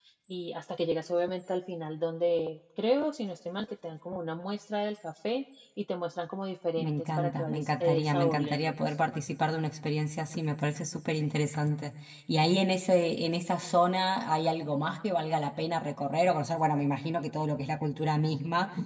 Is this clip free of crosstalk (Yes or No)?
No